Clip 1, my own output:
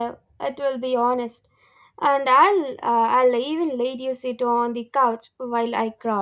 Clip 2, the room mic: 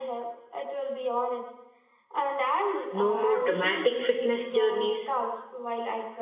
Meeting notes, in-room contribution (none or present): present